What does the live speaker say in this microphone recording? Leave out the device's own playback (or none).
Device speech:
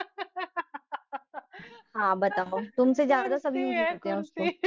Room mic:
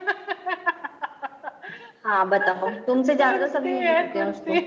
none